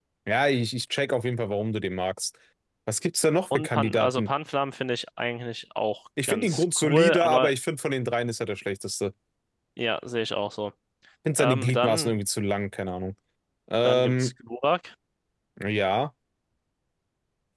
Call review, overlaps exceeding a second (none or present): present